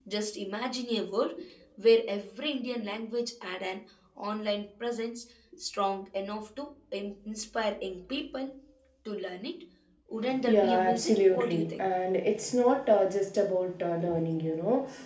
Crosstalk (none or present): present